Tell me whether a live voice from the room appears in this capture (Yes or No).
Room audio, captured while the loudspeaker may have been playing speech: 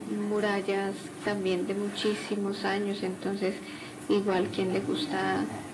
No